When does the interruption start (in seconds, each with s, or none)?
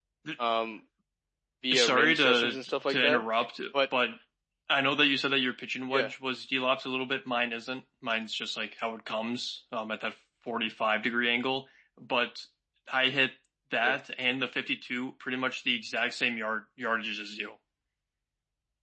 1.7 s